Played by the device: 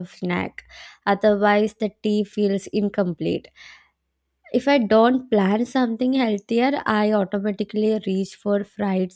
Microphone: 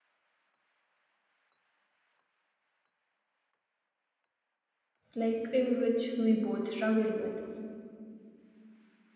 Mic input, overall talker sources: user only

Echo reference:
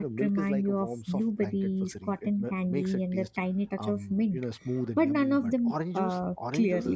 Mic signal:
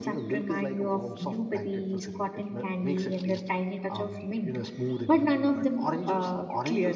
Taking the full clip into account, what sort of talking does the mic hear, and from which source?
echo only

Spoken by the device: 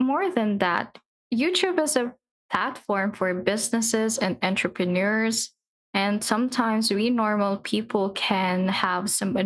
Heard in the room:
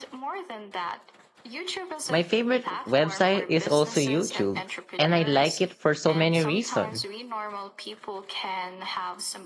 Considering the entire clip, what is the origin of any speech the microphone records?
both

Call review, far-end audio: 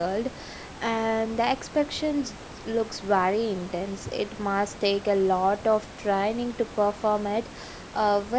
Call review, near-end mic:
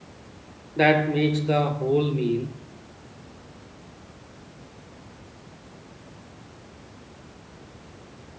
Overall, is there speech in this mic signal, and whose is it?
user only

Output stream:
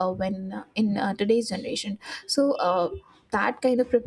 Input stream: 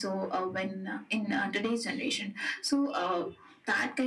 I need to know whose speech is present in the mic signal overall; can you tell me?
echo only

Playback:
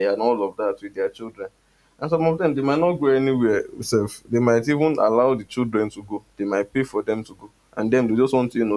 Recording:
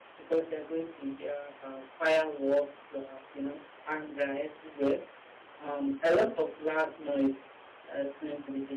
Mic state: user only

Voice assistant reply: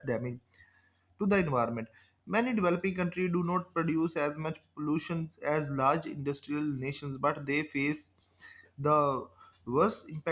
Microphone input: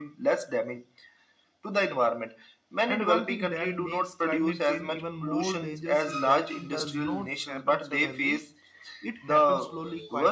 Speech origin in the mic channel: both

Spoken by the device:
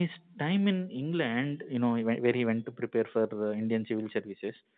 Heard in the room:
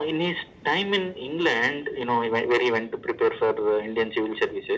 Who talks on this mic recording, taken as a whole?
echo only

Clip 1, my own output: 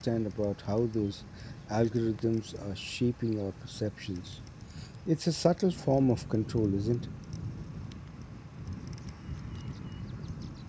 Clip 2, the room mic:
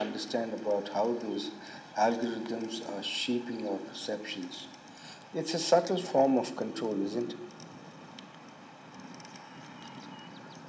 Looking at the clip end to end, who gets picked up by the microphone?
echo only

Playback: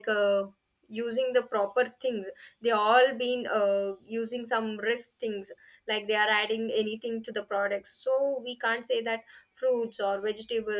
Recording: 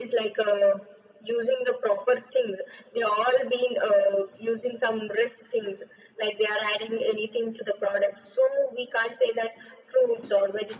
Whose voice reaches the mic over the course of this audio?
echo only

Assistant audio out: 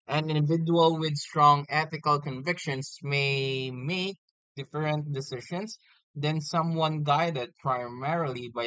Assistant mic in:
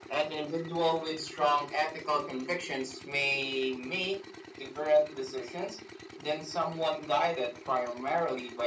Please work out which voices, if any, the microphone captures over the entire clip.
echo only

